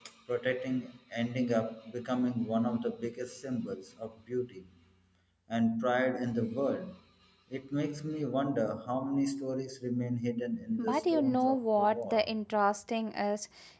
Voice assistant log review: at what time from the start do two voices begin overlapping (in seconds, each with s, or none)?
10.8 s